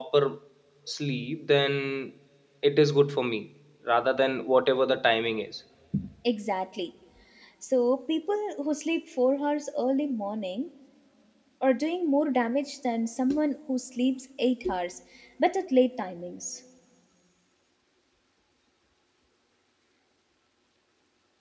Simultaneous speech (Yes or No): No